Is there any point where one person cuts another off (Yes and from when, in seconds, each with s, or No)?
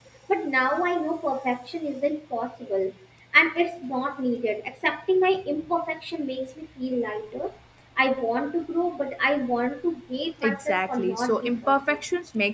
Yes, from 10.4 s